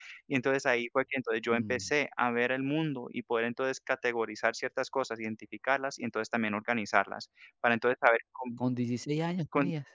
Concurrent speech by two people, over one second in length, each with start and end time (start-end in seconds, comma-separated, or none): none